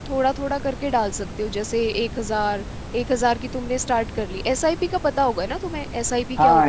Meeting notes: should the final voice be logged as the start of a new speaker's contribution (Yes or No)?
Yes